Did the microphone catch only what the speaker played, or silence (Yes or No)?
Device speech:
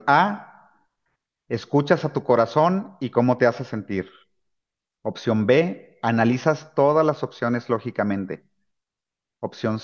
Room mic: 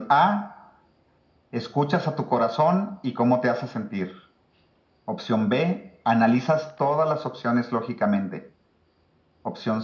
Yes